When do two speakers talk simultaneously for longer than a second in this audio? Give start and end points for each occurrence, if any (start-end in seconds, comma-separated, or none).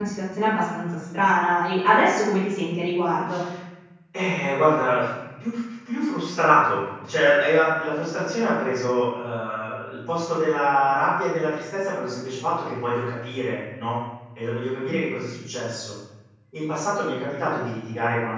none